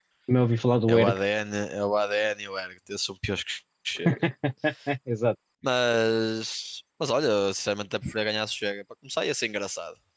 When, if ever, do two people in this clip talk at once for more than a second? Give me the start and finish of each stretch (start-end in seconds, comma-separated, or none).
none